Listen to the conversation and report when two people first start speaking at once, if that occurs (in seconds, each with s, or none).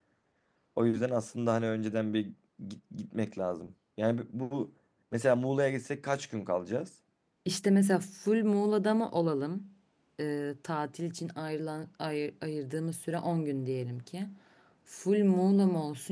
none